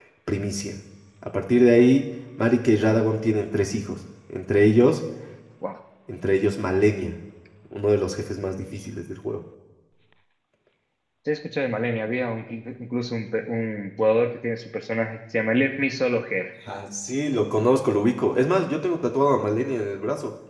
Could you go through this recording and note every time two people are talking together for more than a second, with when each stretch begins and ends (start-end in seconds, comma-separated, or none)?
none